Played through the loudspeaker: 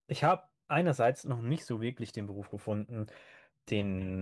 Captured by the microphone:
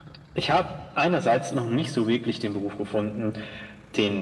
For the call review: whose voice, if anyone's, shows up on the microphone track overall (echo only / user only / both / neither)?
echo only